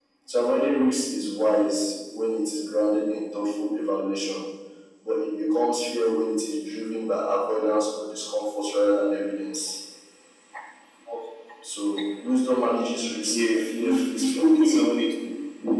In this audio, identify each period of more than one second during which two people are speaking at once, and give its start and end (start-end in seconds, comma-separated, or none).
13.3-14.7